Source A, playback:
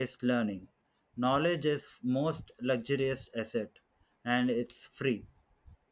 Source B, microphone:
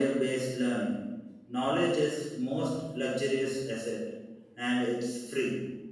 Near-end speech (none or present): none